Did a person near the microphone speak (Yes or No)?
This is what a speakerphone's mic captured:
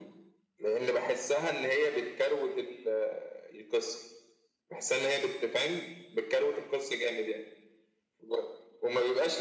No